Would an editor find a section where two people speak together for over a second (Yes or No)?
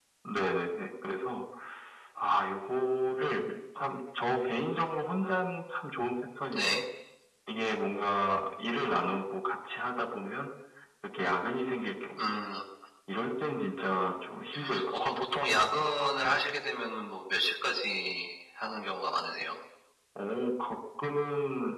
No